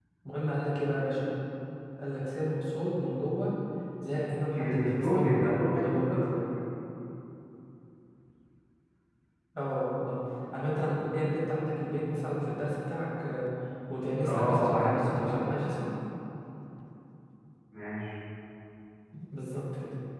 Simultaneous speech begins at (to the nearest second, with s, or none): 5 s